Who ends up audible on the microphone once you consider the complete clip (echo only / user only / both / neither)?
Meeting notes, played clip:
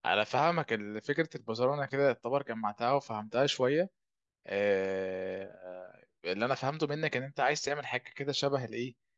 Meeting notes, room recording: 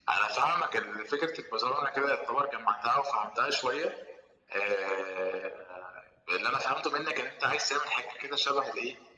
echo only